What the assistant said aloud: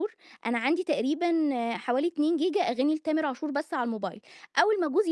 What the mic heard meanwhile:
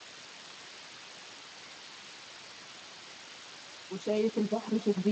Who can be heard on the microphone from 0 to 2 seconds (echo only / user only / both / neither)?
neither